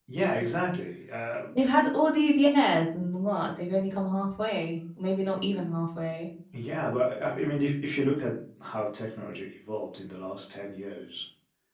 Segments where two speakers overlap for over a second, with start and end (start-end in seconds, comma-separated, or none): none